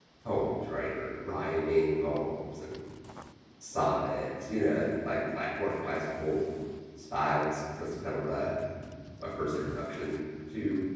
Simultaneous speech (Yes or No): No